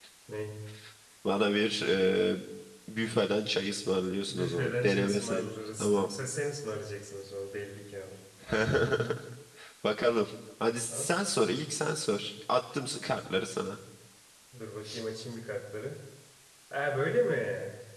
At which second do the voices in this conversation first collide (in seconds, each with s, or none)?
4.3 s